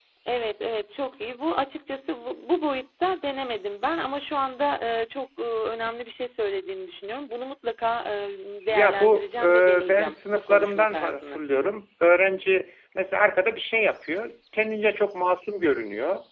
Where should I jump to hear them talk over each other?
9 s

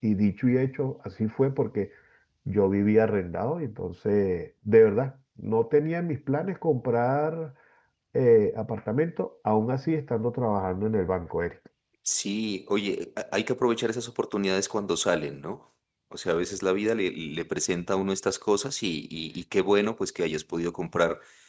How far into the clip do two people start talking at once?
none

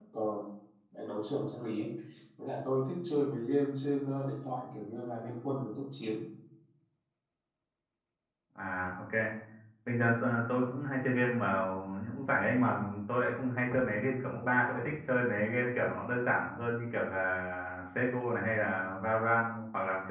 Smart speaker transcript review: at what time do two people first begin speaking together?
none

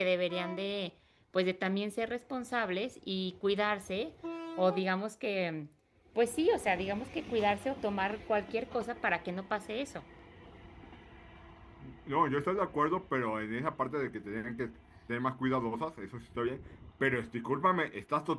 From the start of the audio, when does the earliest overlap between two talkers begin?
none

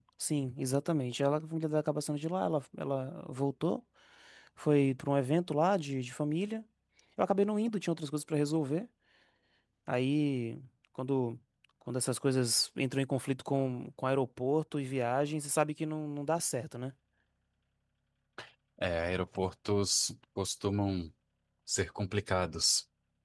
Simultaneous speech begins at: none

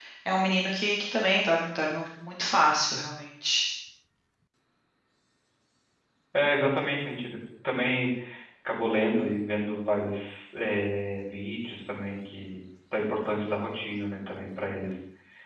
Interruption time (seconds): none

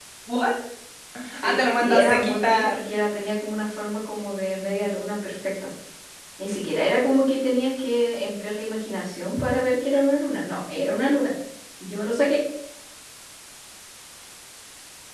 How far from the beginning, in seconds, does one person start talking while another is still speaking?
1 s

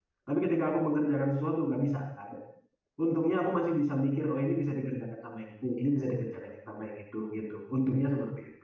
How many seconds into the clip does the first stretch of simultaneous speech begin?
none

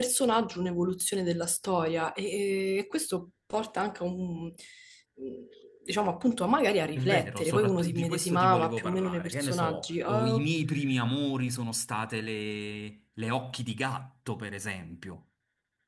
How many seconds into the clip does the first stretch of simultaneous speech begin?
7 s

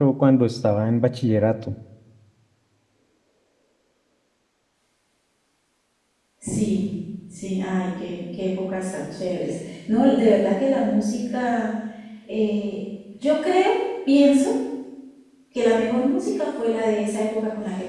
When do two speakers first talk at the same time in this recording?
none

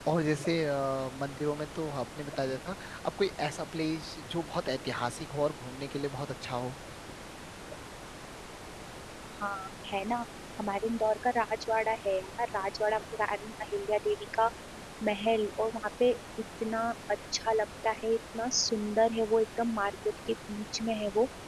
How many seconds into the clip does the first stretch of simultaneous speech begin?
none

